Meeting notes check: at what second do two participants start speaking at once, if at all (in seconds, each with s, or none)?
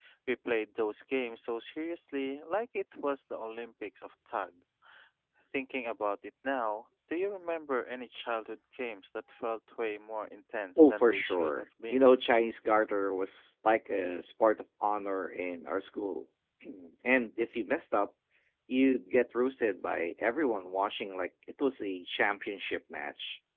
10.8 s